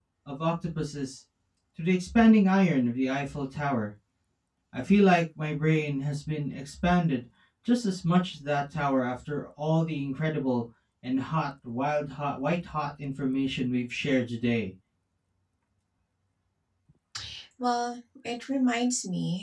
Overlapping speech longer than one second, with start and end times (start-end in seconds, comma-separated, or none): none